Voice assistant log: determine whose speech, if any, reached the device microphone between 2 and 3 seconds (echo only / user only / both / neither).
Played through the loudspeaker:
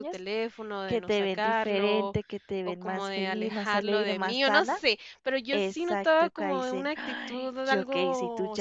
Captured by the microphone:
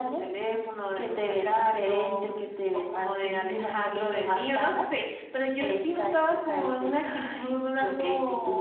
echo only